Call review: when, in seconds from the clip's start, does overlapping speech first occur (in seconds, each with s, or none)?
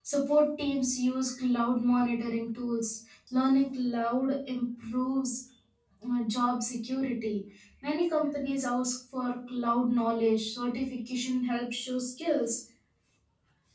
none